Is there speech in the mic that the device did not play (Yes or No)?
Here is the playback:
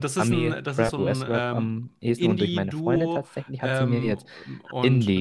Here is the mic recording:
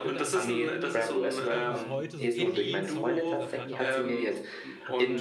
Yes